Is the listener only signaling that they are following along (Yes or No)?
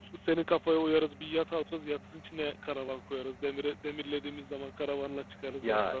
No